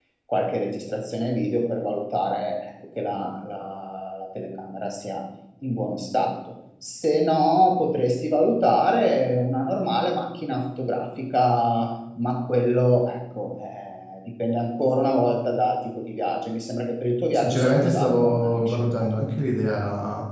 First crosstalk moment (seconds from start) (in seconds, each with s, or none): 17.3 s